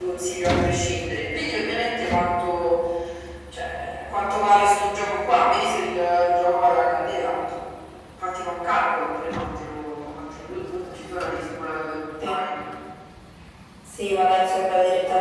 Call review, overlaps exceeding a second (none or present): none